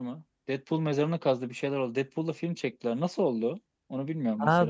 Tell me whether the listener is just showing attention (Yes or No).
No